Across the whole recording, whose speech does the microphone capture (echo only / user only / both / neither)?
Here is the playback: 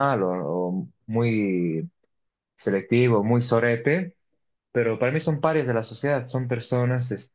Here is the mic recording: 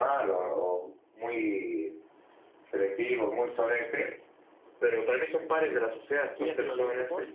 both